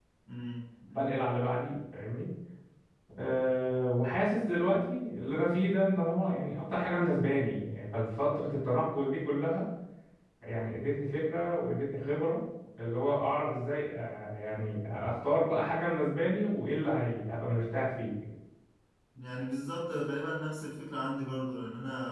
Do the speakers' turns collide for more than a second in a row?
No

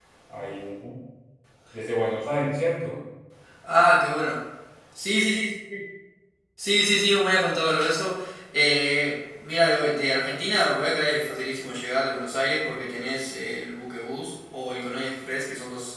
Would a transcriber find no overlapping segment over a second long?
Yes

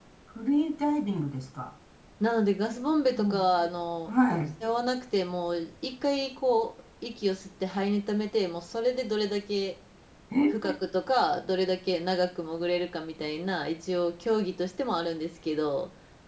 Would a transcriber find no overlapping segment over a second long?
Yes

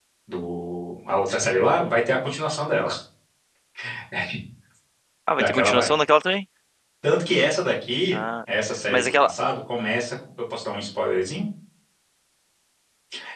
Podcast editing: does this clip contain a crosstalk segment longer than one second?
No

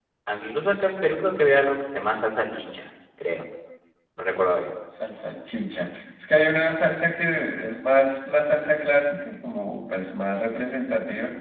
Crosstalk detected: No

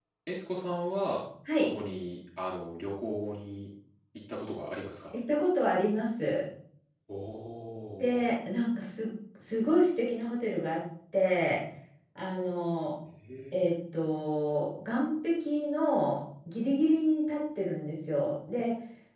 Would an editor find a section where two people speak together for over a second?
No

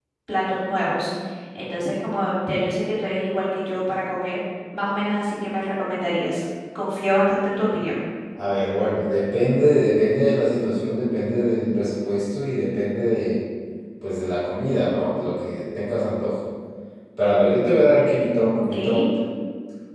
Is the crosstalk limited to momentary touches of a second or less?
Yes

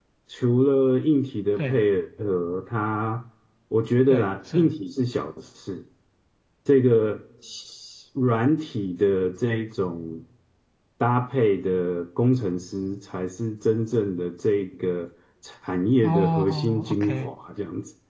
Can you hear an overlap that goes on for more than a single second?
Yes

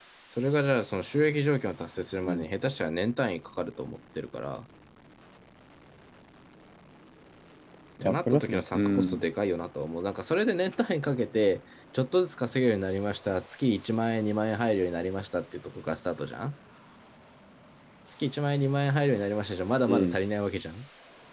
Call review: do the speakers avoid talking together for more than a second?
No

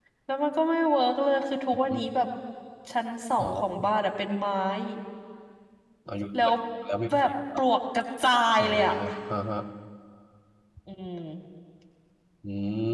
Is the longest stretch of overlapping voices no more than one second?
Yes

